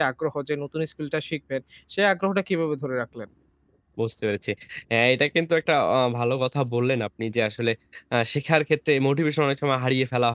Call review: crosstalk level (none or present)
none